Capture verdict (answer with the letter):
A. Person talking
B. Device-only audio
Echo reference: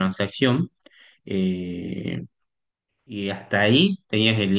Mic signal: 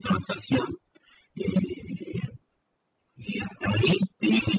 B